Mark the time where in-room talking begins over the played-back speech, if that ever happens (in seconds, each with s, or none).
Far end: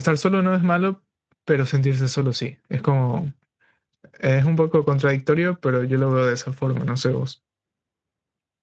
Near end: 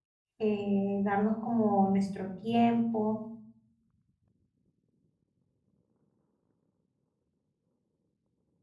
0.4 s